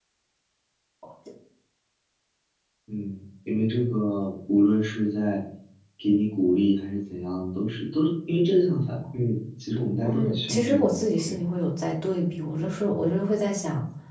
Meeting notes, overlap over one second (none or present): present